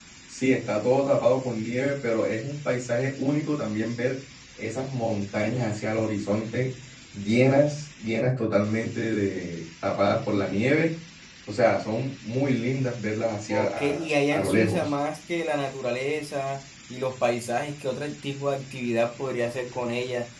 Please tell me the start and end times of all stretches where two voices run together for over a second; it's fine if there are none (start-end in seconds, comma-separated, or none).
13.5-14.9